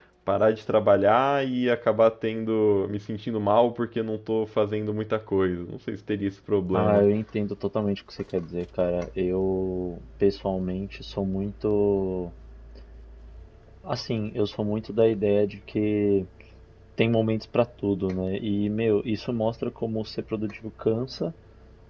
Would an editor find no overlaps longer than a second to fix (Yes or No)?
Yes